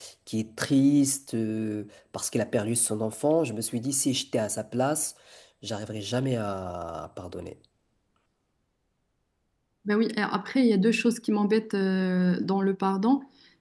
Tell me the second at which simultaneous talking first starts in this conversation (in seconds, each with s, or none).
none